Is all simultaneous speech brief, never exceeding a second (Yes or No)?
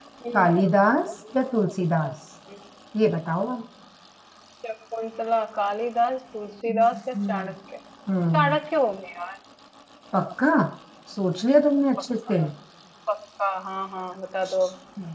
Yes